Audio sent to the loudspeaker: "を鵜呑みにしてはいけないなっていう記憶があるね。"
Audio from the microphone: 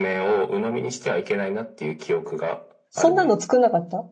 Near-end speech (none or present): present